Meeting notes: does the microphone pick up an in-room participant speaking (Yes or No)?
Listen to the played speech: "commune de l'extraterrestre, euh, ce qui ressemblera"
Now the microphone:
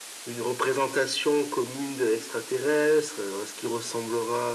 No